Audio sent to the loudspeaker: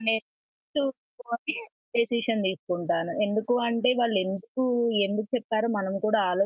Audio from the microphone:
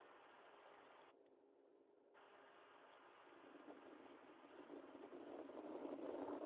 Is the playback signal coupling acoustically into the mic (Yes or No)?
No